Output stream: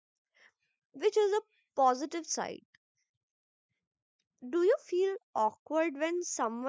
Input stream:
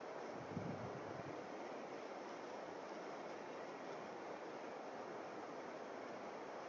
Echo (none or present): none